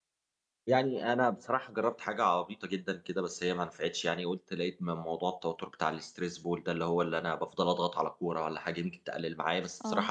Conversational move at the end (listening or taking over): listening